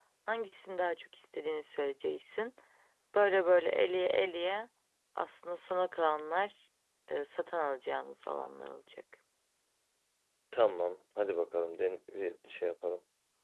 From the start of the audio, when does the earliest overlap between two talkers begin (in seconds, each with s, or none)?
none